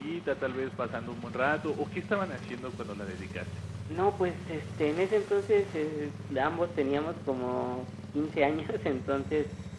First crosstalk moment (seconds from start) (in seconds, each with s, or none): none